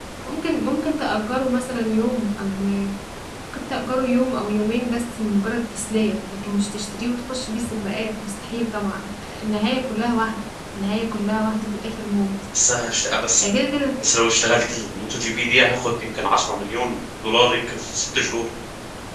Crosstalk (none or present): none